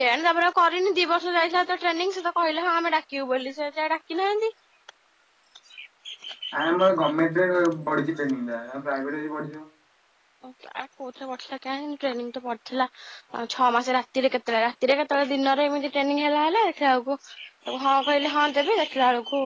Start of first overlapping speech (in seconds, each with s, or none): none